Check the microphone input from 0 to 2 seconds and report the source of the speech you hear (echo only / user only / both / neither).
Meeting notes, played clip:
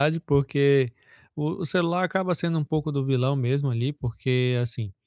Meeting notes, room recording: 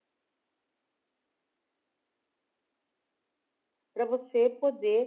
neither